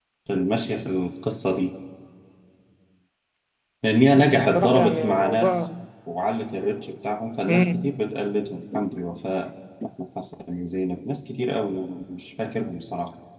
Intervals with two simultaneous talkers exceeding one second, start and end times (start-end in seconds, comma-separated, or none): 4.4-5.6